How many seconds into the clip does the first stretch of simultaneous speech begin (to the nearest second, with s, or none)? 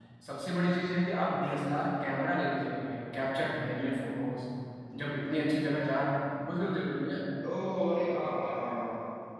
none